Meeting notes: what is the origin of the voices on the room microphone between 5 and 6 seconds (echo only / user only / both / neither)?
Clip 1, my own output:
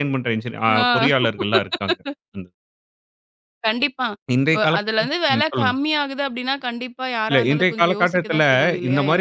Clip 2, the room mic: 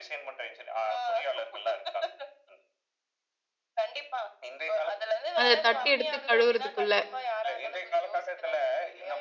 both